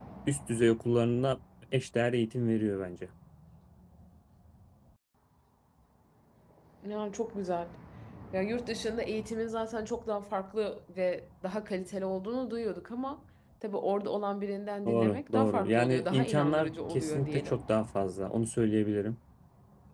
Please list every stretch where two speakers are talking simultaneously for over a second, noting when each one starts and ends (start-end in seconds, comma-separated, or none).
14.8-17.6